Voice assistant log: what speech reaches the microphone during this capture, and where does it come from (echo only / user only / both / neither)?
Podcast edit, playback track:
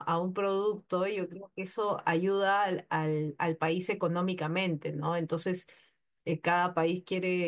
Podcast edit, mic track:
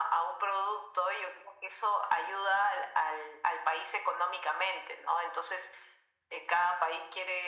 echo only